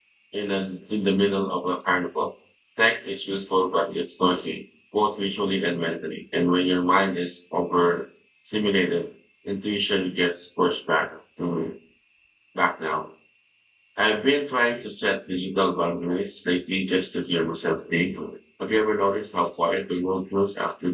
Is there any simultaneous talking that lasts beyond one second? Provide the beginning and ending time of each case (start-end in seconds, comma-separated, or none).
none